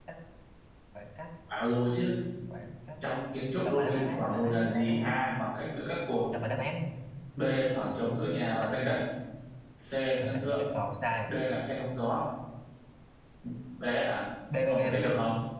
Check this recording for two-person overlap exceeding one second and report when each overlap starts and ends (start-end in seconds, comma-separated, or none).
3.6-5.2